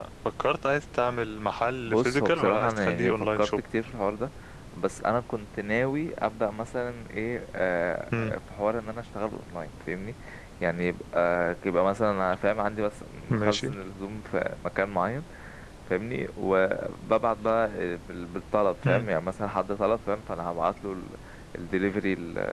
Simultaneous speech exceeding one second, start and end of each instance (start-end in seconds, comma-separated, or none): 1.9-3.6